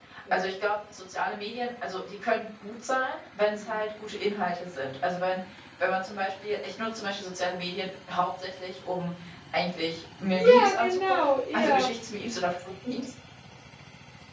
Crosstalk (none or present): present